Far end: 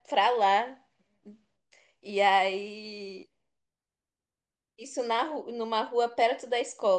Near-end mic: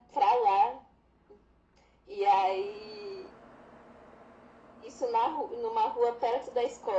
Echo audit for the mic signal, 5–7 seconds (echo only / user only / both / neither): echo only